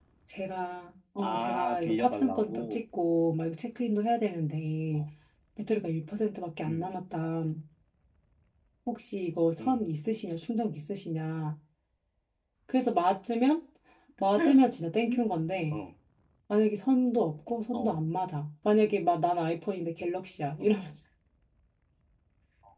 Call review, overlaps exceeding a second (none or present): present